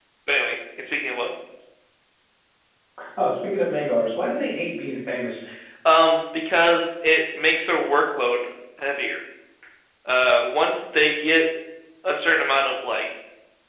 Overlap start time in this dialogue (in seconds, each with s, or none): none